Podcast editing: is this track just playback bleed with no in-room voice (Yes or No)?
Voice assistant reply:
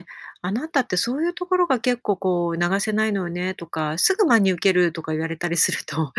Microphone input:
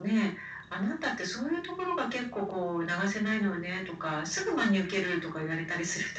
Yes